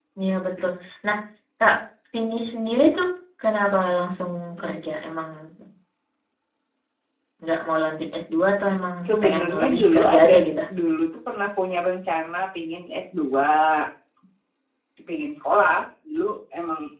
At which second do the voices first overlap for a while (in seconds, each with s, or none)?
9.0 s